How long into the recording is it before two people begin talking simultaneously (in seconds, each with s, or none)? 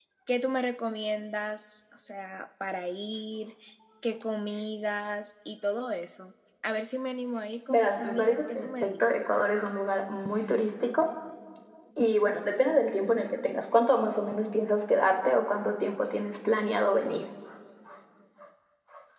7.7 s